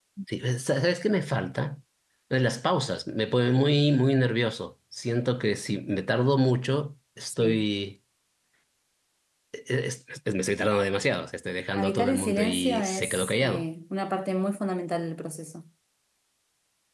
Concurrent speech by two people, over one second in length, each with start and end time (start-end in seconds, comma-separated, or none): 11.8-13.7